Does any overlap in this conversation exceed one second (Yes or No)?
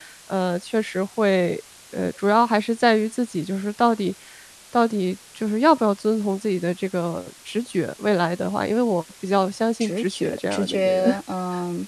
Yes